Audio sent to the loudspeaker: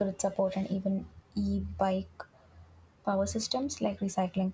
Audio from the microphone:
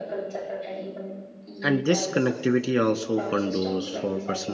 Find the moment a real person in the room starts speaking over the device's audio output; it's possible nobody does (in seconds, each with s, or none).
1.6 s